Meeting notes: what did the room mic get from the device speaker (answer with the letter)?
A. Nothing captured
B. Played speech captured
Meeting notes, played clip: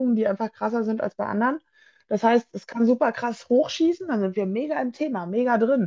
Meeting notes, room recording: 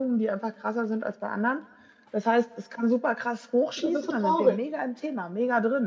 B